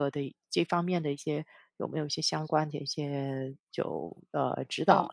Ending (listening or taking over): taking over